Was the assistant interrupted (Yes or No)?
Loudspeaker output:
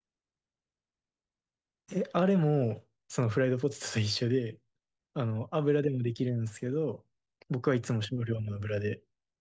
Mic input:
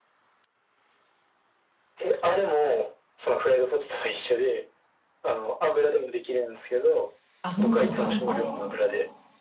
Yes